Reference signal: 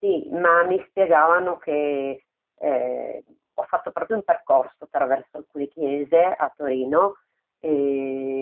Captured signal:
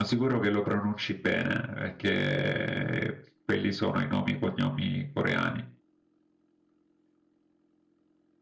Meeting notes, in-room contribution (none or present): present